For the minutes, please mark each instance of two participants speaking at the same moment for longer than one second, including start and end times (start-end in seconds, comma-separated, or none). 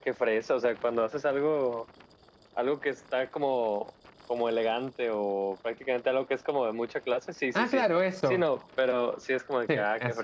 none